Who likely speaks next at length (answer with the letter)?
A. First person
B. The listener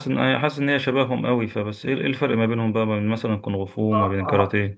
B